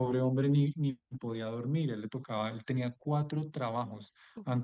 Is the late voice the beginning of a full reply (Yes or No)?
No